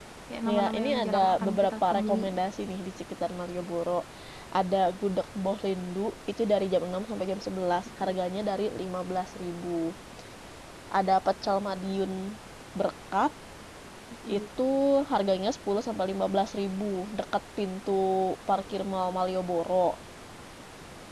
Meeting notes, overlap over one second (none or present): present